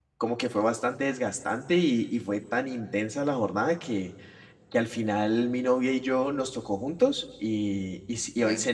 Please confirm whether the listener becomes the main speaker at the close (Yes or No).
No